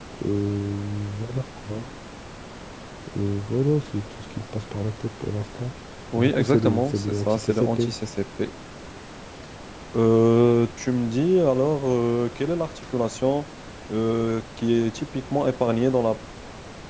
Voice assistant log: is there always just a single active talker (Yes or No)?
No